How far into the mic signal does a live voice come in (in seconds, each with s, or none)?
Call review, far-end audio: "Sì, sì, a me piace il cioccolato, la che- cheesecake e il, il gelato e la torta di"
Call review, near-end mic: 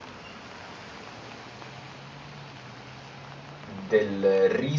3.6 s